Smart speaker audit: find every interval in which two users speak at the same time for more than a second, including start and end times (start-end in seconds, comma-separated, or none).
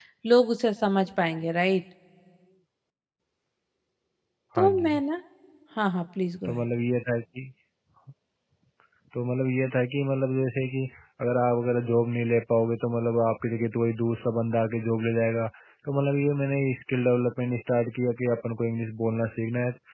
none